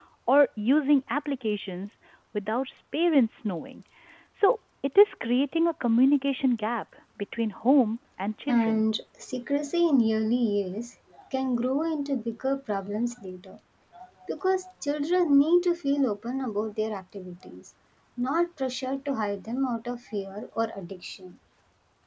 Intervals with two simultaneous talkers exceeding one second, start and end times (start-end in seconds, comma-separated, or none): none